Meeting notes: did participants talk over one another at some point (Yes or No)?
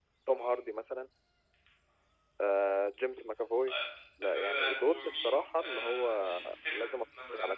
Yes